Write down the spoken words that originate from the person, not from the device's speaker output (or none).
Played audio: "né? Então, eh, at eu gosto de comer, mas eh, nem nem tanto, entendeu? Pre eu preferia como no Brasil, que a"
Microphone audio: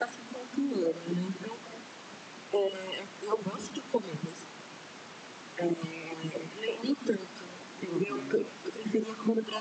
Uhum.